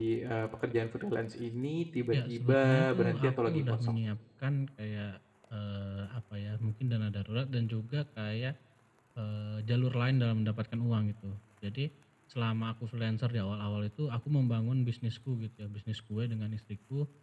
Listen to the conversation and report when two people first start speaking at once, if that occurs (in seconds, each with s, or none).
2.1 s